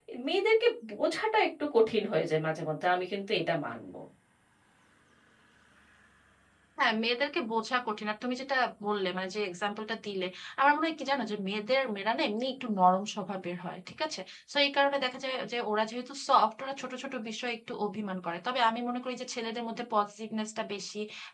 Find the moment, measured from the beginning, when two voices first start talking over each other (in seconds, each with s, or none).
none